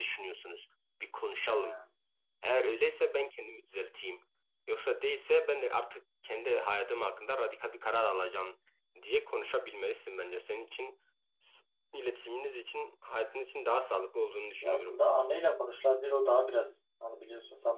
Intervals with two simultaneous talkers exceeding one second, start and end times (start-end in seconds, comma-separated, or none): none